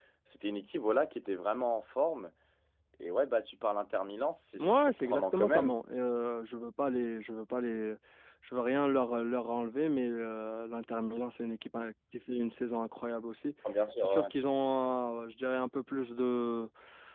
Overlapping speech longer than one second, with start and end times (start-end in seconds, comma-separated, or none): 4.6-5.8